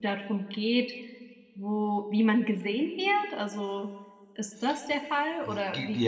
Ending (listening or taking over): taking over